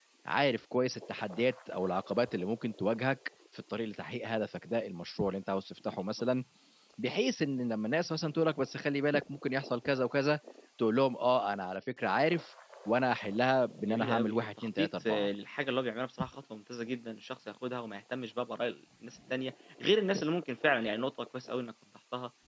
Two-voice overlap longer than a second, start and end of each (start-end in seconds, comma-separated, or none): 13.8-15.3